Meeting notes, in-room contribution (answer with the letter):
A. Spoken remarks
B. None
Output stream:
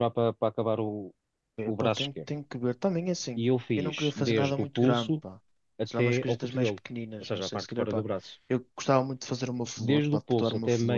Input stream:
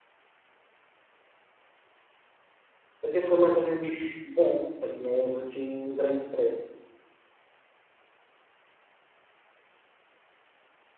A